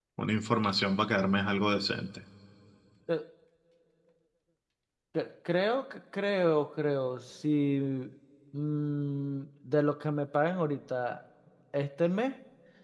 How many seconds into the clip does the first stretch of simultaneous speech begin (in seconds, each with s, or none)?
none